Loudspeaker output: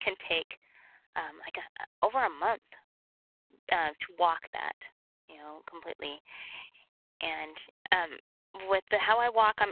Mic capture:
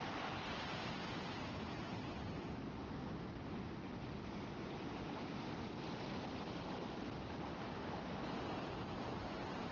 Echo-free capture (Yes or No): Yes